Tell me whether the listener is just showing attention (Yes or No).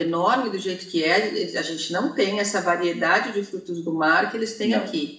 Yes